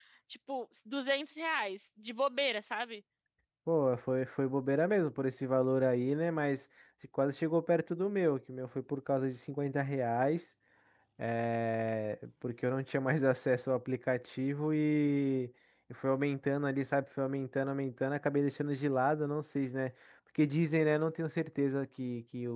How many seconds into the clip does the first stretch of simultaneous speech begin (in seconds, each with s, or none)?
none